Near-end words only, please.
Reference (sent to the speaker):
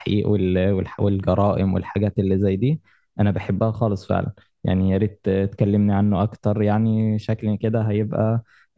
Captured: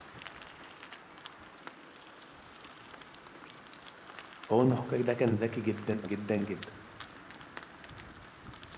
هو المحقق ده كان ذكي جدا جدا جدا

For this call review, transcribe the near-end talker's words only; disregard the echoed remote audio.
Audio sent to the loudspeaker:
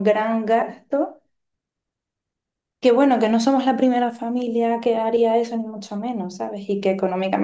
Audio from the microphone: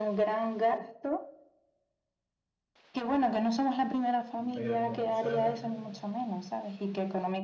ver cómo sale

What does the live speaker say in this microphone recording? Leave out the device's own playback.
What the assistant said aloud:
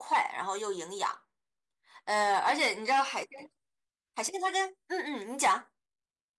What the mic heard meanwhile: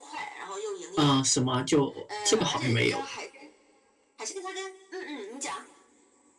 嗯，什么就这个好像没有

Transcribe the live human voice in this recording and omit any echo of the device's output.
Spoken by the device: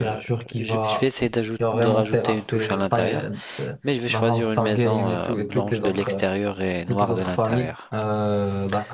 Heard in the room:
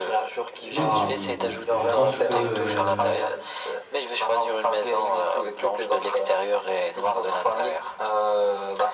Mais bon, mais bon, je pense que euh,

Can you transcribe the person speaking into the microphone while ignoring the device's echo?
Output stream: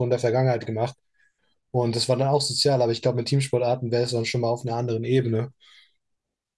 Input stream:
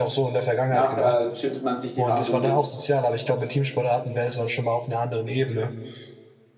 Nachher schüttelt man sich die Hand und ist,

